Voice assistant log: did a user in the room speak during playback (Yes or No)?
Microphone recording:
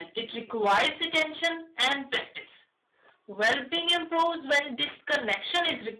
No